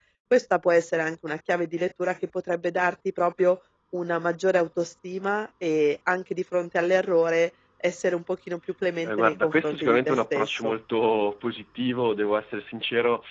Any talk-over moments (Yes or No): Yes